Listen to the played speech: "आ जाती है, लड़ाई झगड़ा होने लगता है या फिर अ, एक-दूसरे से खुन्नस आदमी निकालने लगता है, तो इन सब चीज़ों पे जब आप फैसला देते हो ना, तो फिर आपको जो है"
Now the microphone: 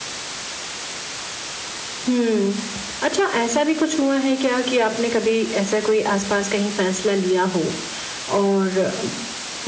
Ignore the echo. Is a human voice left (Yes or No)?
Yes